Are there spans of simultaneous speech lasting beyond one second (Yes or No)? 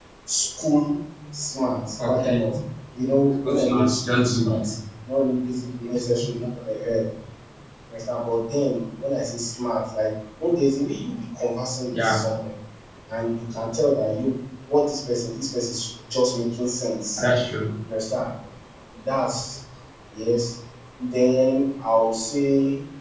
Yes